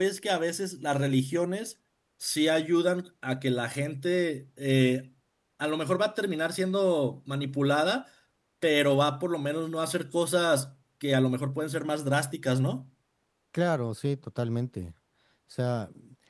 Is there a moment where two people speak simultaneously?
No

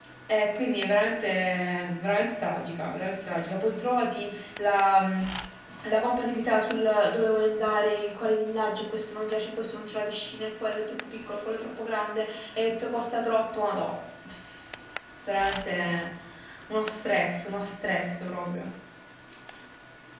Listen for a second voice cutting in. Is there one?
No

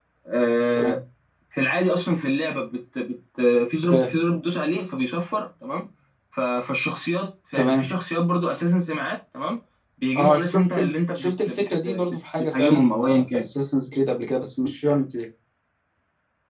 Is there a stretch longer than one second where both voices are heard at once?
Yes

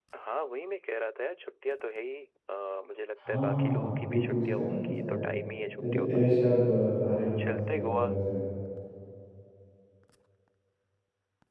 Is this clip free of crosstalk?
No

